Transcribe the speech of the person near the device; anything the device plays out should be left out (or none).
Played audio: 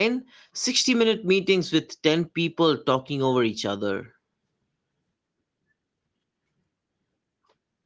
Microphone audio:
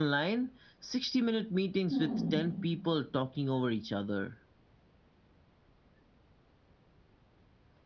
Hmm,